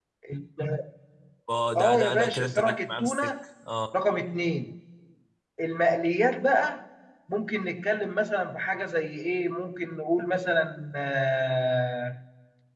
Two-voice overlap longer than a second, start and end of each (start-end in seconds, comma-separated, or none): 1.8-3.3